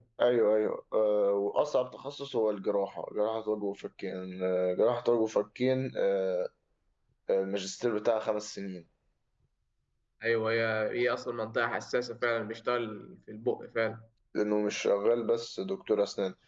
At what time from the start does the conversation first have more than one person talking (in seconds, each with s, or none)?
none